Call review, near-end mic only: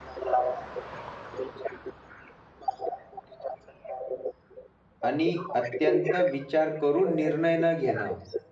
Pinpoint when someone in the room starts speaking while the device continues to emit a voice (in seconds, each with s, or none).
5.0 s